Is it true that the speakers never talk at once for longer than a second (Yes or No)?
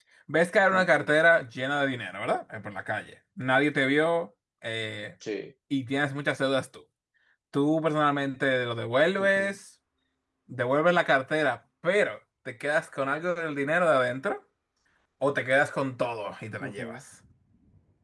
Yes